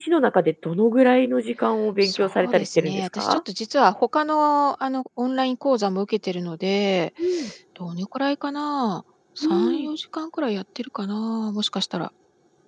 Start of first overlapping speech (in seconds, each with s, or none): 2.0 s